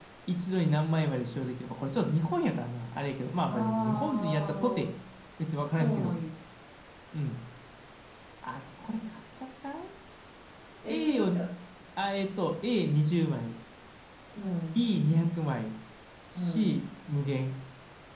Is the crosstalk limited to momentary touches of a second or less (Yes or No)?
No